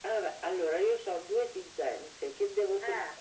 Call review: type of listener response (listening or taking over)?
listening